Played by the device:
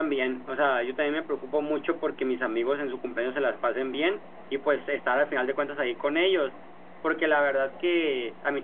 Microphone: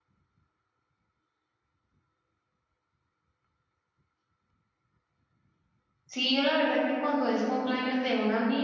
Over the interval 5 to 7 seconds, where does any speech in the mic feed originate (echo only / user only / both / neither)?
user only